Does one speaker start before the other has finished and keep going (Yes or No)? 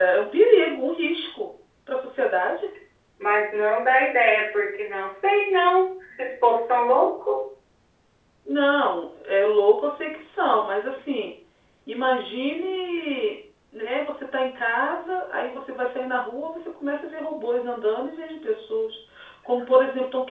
No